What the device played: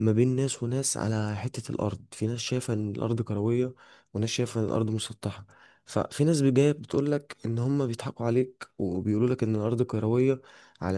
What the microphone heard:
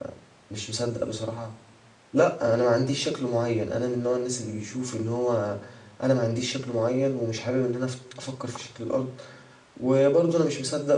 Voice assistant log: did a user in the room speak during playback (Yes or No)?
Yes